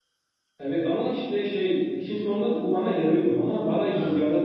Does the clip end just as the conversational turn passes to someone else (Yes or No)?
No